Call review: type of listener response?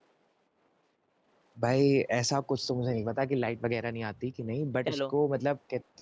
listening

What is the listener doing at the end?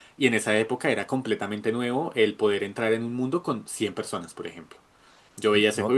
listening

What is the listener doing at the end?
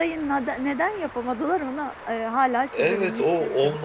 taking over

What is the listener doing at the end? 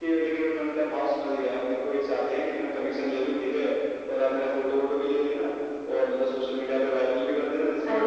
taking over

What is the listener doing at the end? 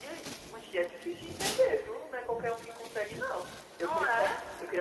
listening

